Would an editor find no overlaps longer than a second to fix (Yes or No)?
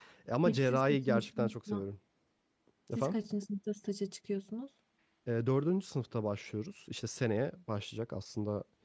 No